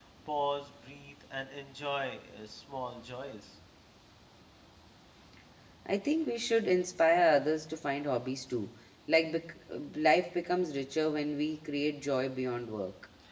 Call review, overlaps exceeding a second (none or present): none